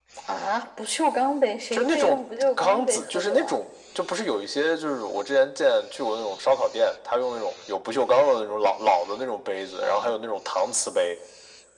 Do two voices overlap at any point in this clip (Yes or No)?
Yes